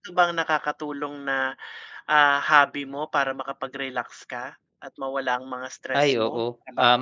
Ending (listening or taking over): taking over